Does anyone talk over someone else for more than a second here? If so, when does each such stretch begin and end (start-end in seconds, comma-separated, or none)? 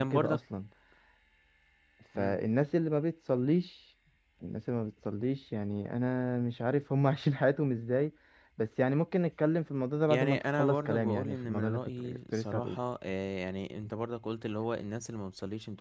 10.1-12.8